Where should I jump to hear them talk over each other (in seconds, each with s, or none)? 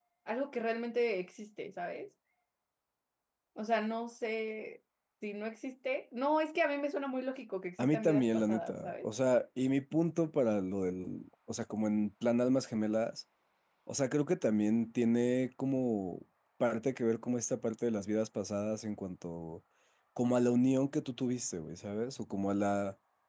7.8 s